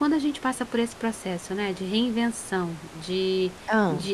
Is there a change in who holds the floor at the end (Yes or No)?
No